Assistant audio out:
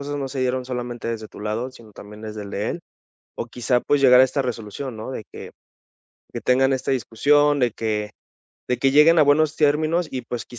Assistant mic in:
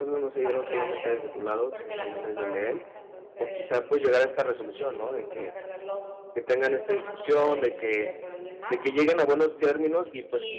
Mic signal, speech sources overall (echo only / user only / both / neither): both